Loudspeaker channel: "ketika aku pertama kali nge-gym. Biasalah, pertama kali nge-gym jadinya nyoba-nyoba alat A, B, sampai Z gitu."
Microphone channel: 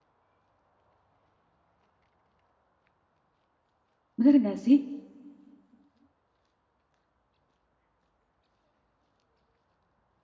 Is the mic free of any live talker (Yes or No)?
No